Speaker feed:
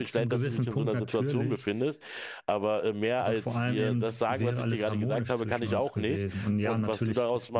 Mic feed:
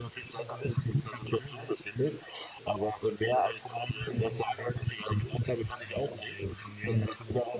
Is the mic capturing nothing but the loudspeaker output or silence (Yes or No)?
Yes